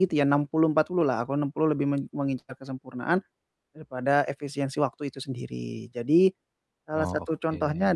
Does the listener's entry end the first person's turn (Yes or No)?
No